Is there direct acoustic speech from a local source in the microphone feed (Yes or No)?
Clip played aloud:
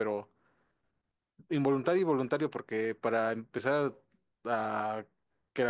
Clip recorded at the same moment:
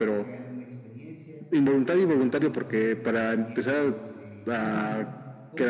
Yes